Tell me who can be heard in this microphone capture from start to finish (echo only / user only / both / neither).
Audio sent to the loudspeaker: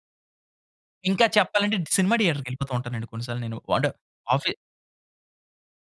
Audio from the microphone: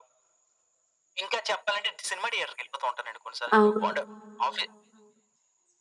both